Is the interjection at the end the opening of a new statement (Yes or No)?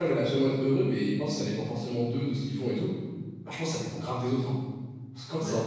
No